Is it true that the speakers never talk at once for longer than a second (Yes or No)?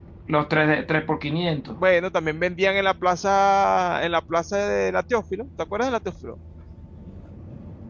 Yes